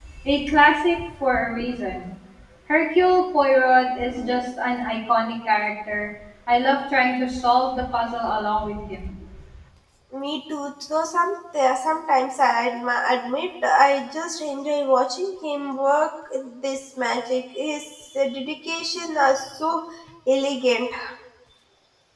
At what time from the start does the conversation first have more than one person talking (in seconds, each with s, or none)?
none